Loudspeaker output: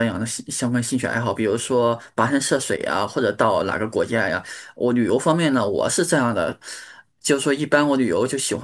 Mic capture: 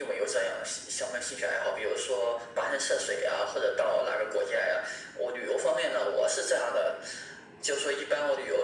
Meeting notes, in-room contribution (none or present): none